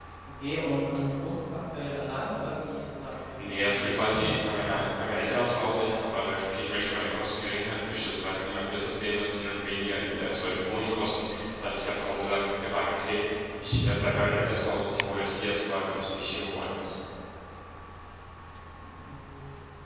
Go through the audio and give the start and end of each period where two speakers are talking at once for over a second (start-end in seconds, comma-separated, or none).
3.4-4.7